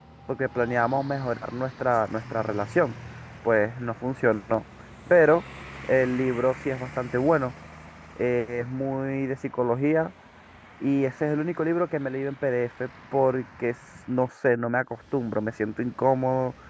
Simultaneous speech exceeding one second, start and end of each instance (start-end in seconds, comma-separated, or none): none